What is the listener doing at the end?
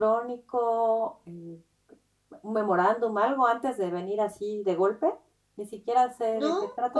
taking over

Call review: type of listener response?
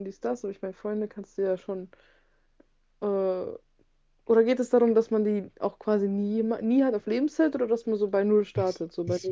taking over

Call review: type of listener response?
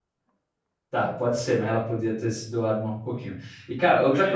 listening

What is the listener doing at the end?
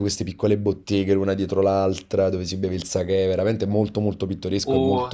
taking over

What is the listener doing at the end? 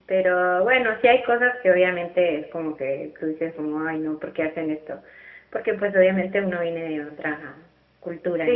taking over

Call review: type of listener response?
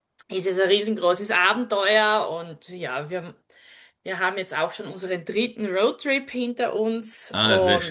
taking over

